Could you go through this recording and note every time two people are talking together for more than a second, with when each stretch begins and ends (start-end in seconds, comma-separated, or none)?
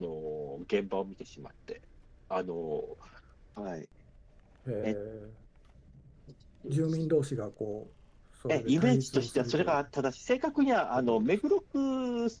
8.5-9.8